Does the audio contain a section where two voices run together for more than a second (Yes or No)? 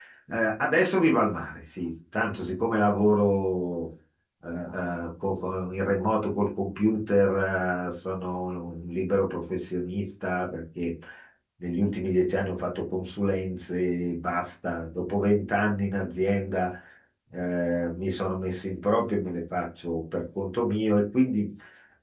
No